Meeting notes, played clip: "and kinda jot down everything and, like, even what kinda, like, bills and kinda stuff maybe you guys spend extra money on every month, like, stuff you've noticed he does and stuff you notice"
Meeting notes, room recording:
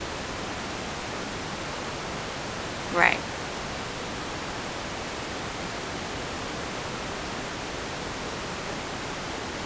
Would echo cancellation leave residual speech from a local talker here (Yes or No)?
Yes